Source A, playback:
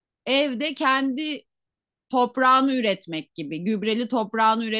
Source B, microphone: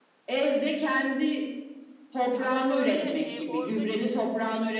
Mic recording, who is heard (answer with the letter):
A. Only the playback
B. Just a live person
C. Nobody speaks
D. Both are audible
D